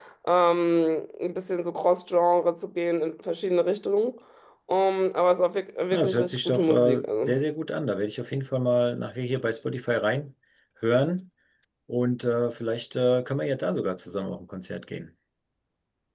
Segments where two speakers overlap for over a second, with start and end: 5.9-7.3

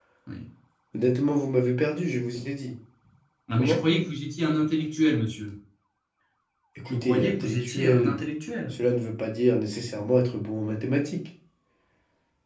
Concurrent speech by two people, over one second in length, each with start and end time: 6.9-8.2

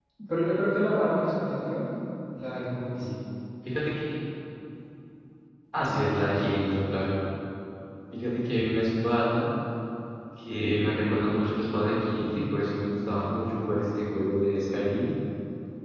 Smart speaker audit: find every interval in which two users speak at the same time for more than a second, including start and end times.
none

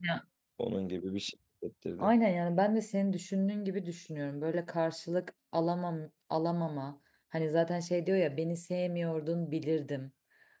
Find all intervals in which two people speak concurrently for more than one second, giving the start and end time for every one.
none

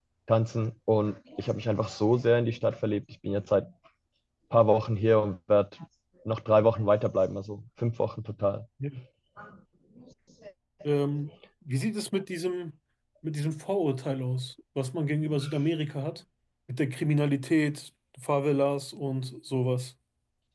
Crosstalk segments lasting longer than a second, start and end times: none

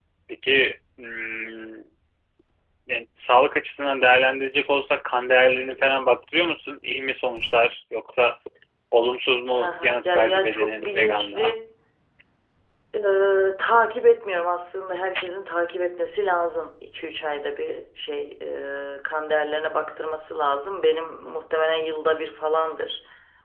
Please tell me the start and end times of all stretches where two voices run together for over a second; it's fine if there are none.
9.6-11.5

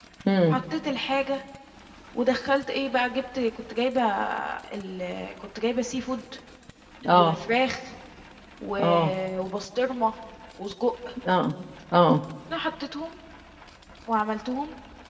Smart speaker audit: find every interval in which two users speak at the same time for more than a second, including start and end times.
none

